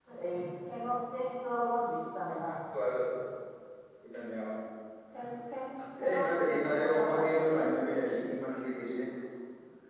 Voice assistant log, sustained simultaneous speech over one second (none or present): present